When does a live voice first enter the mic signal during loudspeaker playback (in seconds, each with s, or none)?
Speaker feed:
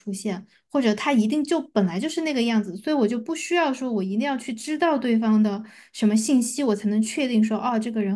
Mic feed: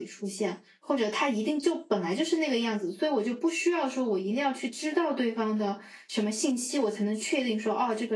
none